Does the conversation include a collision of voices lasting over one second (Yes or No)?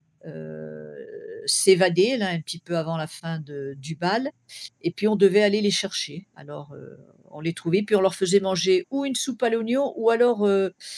No